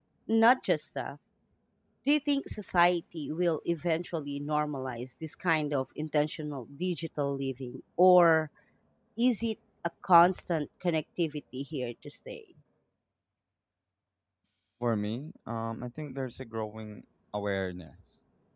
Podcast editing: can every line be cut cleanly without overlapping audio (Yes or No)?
Yes